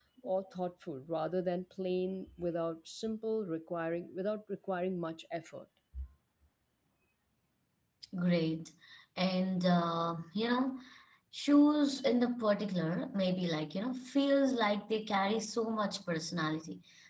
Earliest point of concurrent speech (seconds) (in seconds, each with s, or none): none